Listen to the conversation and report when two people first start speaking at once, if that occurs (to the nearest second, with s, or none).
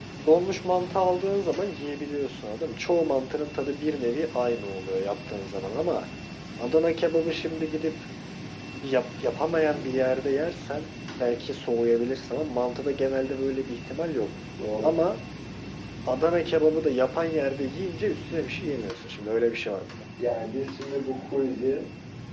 none